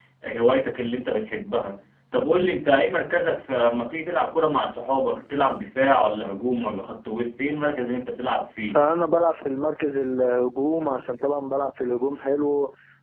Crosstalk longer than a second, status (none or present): none